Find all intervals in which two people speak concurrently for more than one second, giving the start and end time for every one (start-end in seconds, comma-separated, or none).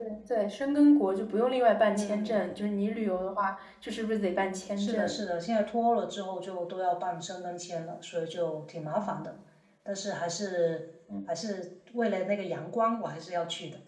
none